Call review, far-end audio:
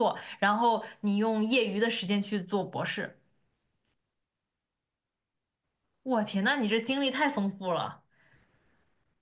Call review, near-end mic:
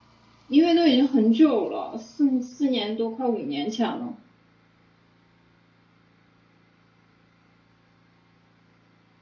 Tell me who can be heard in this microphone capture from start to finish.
user only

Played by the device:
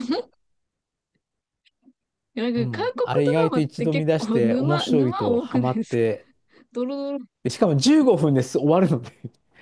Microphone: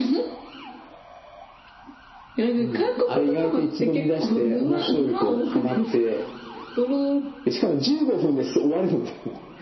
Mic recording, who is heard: echo only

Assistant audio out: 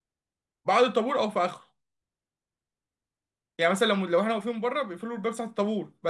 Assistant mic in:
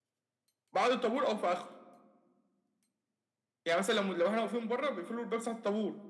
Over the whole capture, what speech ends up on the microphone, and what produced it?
echo only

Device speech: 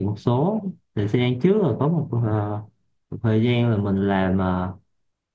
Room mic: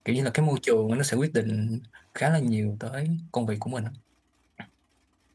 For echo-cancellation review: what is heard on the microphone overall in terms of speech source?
user only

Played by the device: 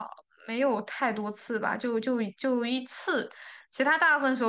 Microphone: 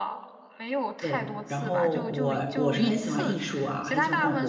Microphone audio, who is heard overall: both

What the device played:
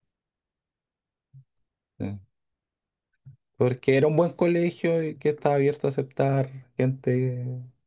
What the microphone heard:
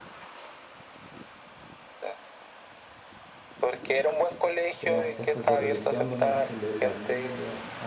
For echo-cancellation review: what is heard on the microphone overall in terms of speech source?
both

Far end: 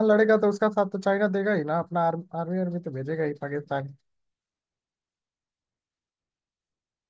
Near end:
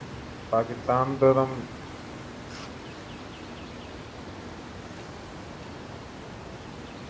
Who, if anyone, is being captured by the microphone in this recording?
user only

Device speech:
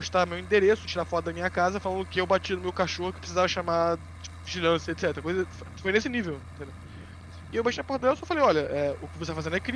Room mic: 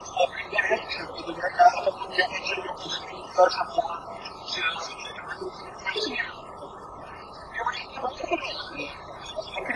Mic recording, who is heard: echo only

